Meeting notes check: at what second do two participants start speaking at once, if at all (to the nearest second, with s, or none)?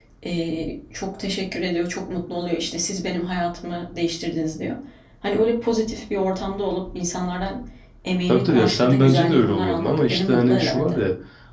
8 s